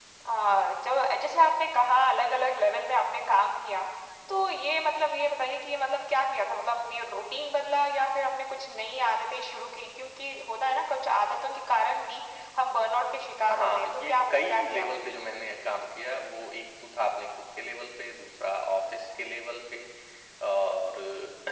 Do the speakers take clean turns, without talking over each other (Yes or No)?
No